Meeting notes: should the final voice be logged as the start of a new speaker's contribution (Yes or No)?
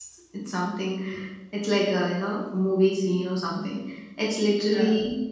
No